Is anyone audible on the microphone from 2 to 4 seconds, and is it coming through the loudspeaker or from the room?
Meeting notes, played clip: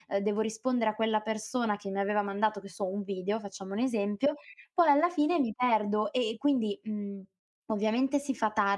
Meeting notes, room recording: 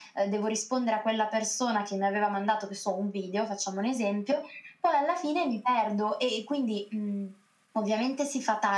echo only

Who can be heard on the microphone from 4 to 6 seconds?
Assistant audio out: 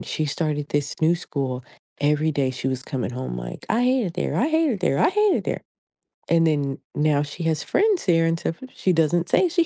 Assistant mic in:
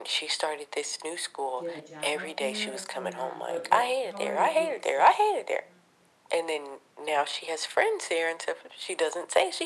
both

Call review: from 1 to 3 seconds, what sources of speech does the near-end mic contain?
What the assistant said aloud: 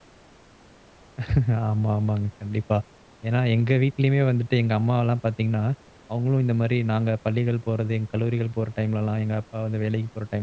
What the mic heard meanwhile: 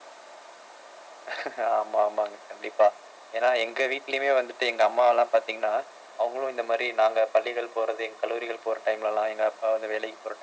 echo only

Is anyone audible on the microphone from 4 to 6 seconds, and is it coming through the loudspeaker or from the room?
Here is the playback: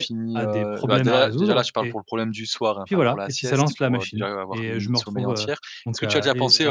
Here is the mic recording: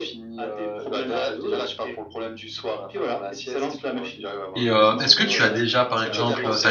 both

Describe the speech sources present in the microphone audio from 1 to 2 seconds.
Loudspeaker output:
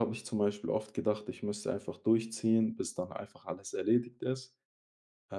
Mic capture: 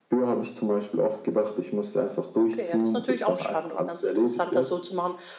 echo only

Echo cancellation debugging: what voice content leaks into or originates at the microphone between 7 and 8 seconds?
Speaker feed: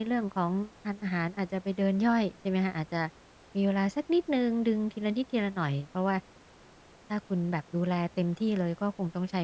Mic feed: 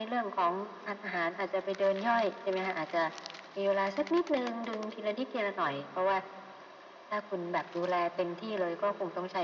echo only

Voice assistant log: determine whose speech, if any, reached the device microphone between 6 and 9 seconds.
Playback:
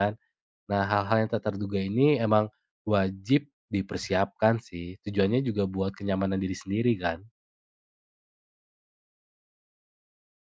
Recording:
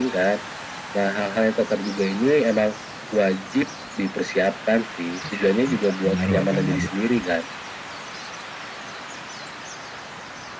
both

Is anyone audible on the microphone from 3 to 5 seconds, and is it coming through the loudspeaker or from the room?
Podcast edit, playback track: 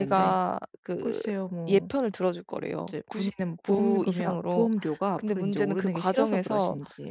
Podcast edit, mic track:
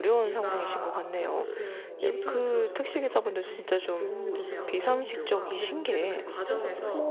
both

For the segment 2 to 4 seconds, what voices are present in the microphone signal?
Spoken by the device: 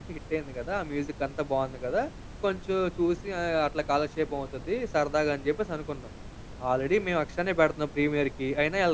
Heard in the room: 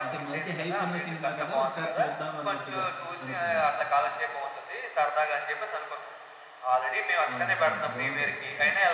both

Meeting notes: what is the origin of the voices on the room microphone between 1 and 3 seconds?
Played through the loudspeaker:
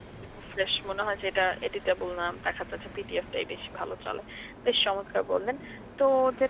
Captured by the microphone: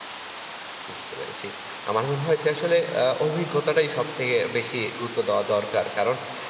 user only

